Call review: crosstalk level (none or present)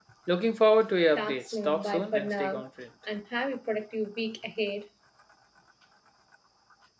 present